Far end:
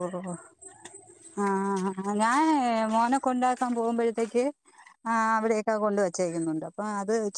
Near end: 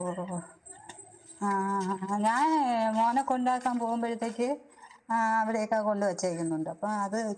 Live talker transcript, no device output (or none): none